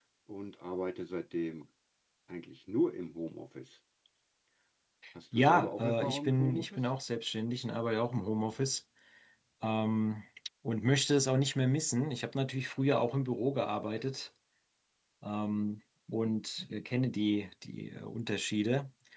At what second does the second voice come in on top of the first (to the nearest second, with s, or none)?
5 s